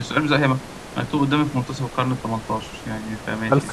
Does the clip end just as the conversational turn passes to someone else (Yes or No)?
Yes